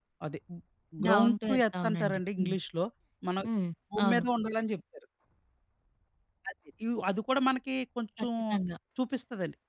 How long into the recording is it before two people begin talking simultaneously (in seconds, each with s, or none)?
1.1 s